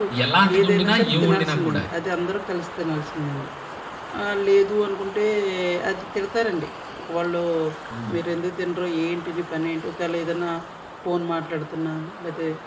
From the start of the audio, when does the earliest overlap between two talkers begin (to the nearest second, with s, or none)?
1 s